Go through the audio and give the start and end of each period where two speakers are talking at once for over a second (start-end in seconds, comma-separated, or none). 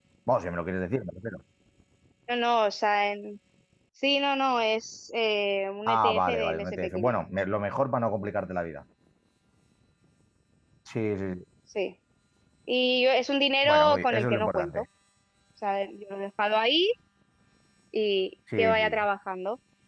5.9-7.2, 13.6-14.8